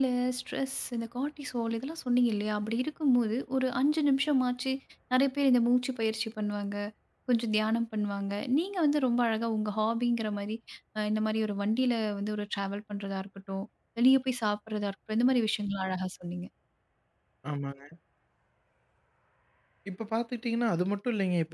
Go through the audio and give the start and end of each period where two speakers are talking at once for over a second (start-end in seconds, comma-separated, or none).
none